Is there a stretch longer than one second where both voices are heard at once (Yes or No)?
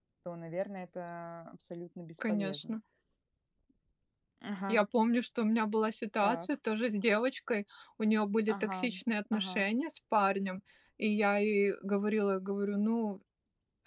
No